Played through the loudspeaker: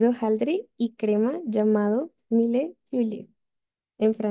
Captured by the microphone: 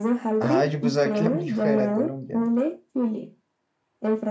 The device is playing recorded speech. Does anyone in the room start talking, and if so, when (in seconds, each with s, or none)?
0.4 s